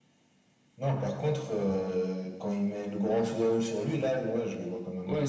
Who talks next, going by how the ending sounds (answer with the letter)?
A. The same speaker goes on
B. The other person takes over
B